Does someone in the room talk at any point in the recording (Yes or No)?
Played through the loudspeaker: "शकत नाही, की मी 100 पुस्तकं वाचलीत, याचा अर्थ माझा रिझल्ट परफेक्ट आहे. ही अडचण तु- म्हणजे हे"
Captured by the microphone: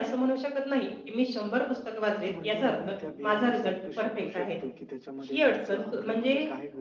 Yes